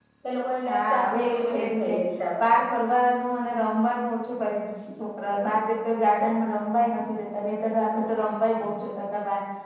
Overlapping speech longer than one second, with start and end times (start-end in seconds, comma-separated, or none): 0.7-1.9